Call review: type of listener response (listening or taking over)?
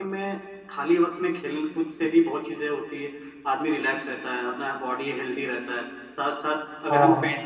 listening